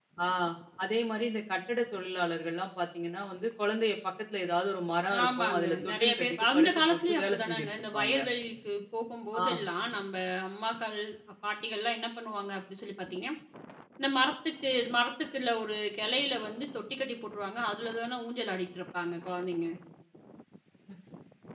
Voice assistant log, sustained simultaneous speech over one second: present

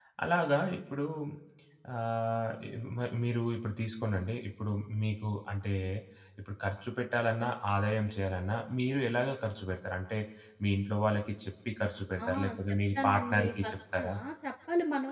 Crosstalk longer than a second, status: present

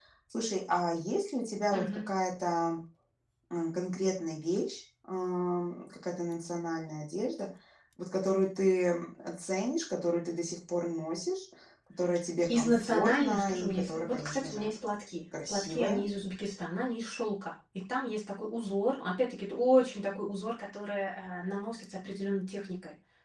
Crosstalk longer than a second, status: present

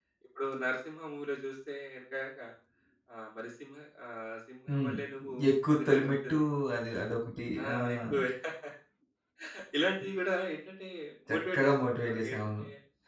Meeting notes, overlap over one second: present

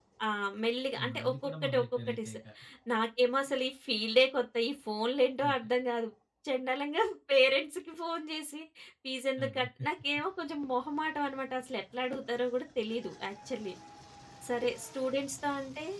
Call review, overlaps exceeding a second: present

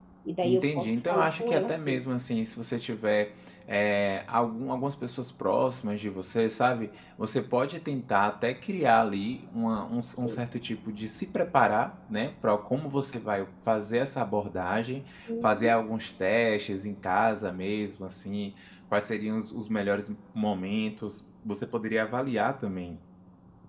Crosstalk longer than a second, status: present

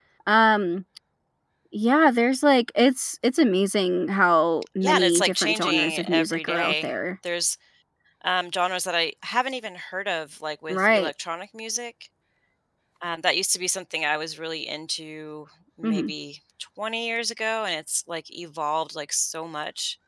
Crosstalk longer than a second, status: present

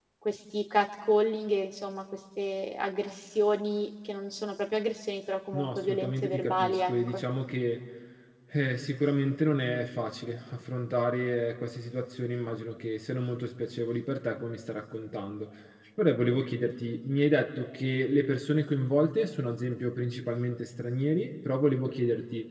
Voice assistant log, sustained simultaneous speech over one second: present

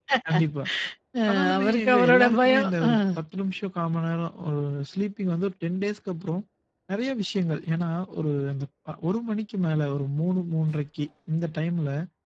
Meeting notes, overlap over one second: present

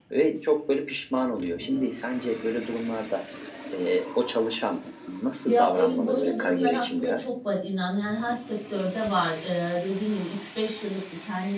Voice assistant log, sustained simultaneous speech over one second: present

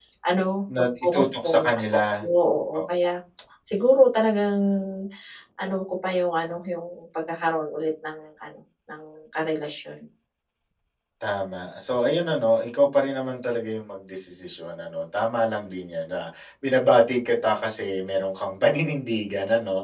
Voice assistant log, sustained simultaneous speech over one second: present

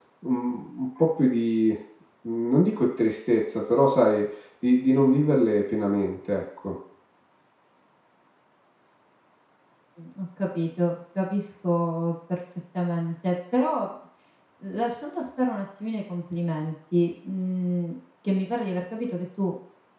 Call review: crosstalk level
none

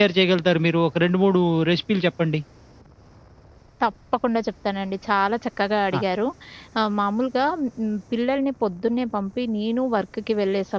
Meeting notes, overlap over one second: none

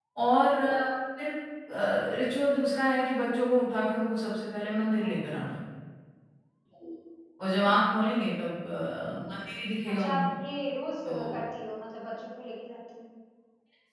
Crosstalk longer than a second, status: none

